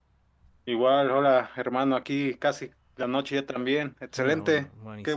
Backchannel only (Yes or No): No